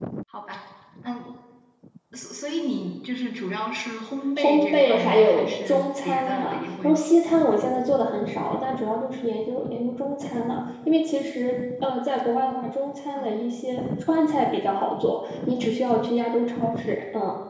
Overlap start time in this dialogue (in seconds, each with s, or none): 4.4 s